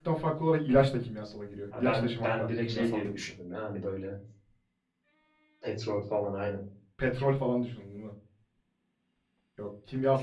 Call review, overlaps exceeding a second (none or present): present